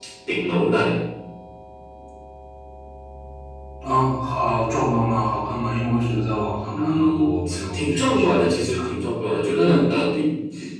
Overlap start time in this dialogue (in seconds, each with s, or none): 6.7 s